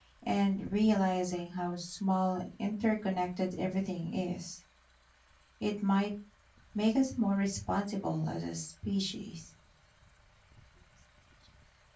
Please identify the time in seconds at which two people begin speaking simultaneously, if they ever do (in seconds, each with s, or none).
none